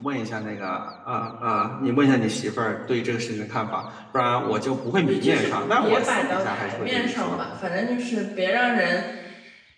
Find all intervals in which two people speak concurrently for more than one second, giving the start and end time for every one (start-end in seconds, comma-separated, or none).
5.1-7.8